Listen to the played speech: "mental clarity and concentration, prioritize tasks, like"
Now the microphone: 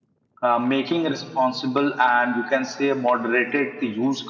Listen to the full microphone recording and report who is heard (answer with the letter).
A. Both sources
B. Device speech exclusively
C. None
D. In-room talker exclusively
D